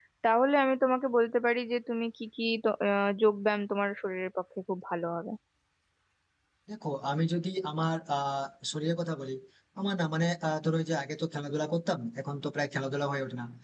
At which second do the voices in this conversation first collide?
none

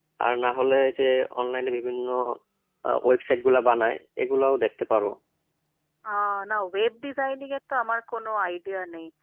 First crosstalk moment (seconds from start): none

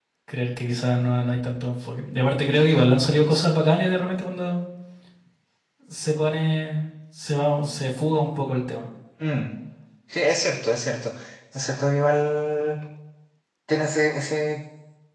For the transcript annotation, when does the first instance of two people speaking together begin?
none

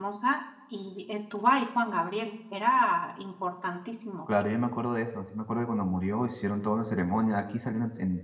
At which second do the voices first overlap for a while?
none

